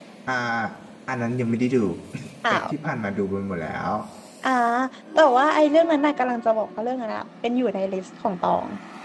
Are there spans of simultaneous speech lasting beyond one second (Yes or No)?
No